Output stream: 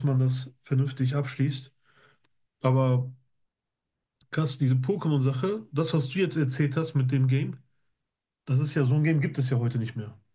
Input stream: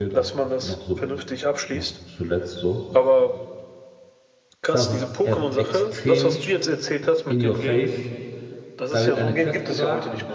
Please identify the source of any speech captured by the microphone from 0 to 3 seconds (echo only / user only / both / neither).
both